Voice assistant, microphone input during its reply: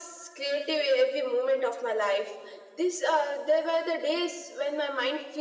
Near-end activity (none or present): none